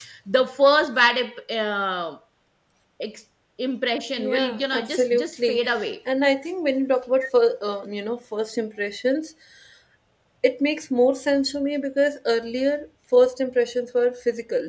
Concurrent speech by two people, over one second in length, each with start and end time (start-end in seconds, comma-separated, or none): 4.2-5.6